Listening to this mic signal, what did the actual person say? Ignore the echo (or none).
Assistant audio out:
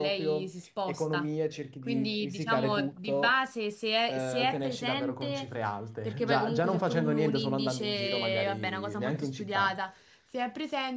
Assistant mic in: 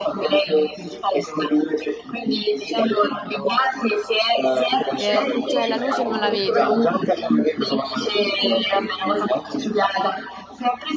Eh, se c'è la luce non la vedi.